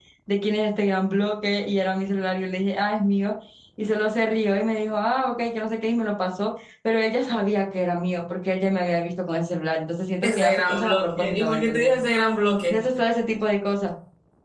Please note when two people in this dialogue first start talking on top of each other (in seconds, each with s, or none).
10.2 s